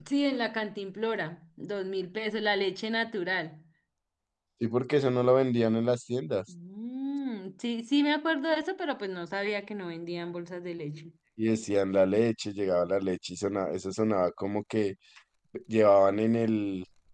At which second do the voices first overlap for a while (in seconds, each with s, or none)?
none